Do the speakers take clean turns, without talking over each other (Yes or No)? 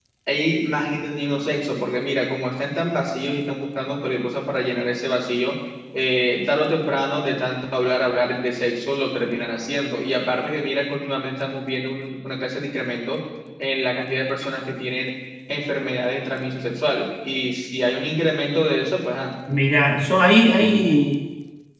Yes